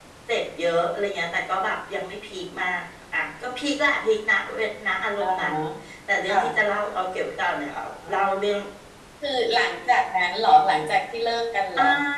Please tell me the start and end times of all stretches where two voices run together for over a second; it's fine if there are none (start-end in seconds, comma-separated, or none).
none